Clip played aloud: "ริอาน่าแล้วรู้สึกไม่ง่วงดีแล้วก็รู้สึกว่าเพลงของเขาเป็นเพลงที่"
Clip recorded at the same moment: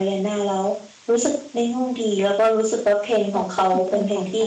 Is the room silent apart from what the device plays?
No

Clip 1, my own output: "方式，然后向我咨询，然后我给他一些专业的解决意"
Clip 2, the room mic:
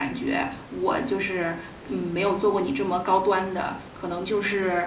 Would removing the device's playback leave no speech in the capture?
No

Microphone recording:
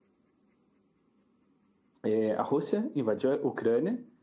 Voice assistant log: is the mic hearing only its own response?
No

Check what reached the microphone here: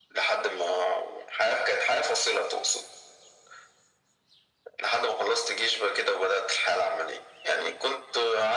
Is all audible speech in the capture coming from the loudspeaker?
Yes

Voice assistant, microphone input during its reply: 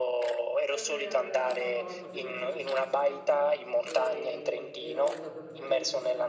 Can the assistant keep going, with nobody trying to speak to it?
No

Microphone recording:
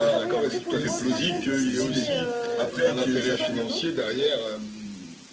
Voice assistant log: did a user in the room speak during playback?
Yes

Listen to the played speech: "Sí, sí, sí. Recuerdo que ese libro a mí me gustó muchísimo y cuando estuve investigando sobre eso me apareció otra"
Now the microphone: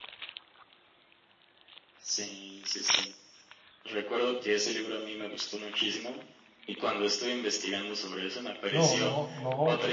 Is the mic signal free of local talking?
No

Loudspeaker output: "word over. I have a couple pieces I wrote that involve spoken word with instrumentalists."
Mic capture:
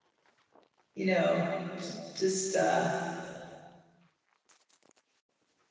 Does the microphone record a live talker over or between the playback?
Yes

